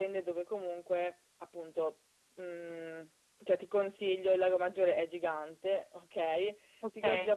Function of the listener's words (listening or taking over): listening